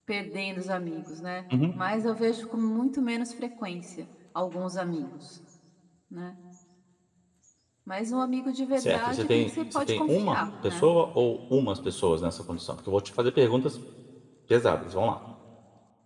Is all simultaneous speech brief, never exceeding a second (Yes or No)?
No